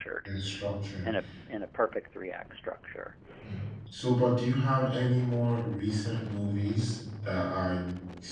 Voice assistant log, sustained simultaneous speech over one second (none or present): none